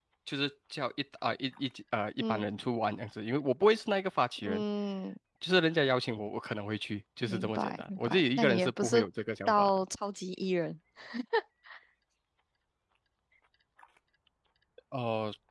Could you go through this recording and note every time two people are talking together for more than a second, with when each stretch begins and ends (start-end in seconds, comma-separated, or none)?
7.3-9.0